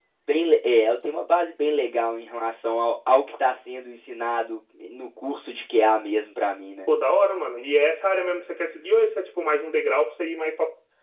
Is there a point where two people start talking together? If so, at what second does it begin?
none

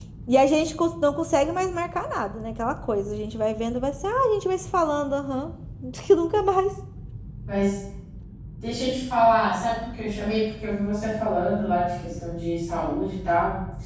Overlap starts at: none

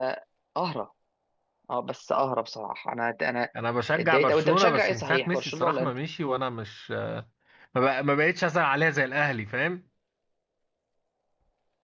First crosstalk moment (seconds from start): 4.0 s

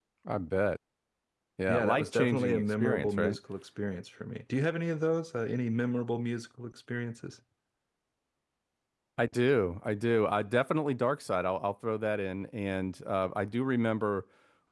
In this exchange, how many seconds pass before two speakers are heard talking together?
1.7 s

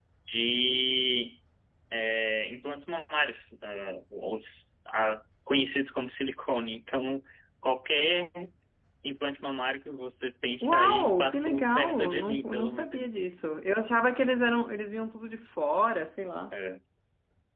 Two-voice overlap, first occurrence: 10.6 s

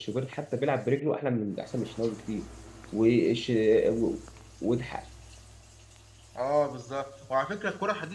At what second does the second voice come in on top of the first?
none

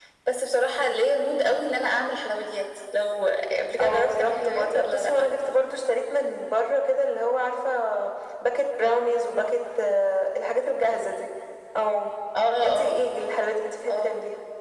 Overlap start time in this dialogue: 3.8 s

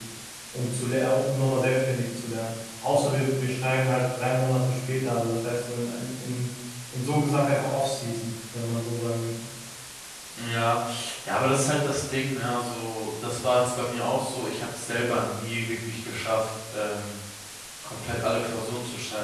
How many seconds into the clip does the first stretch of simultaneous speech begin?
none

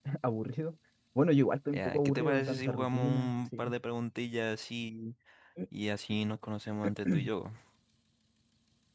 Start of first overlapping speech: 1.7 s

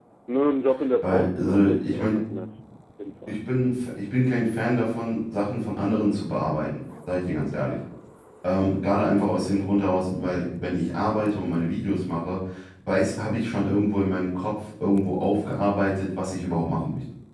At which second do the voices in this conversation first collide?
1.0 s

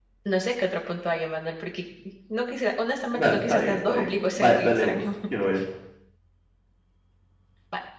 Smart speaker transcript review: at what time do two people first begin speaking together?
3.1 s

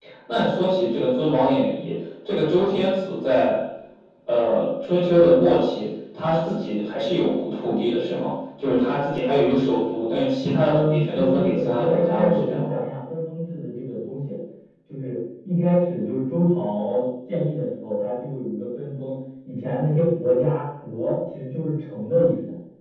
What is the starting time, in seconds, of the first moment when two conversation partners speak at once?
10.6 s

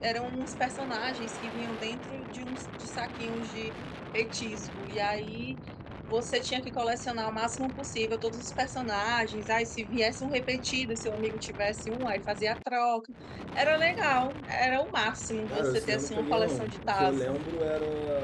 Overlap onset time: 15.5 s

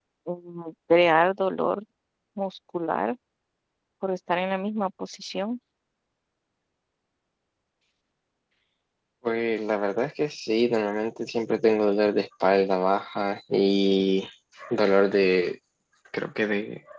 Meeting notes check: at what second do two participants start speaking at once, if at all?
none

